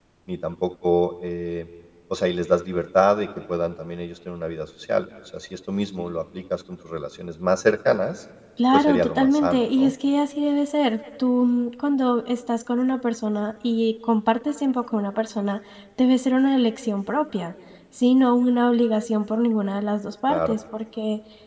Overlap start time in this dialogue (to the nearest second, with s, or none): 9 s